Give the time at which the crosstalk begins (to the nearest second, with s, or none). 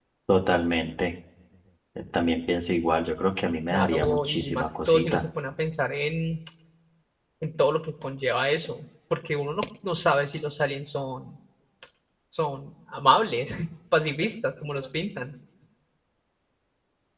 4 s